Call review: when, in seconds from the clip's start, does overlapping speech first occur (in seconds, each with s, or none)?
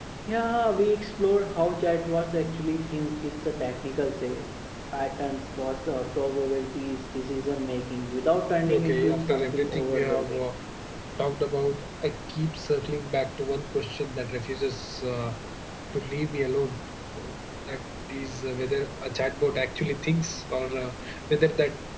8.7 s